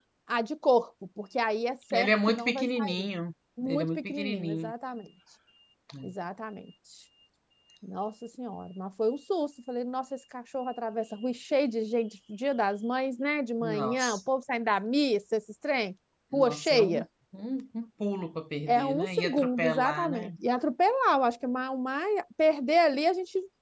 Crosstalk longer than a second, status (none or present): present